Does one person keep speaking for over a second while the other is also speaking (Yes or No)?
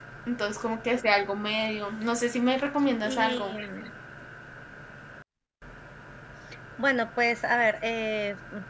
No